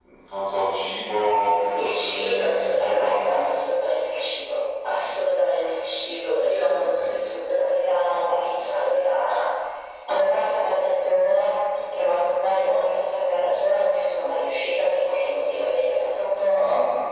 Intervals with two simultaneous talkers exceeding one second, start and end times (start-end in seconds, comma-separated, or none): 1.8-3.2